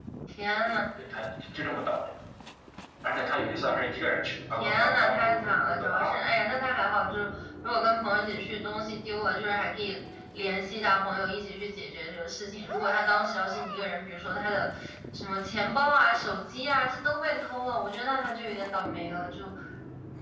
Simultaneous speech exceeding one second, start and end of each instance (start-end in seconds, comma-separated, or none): 4.6-6.2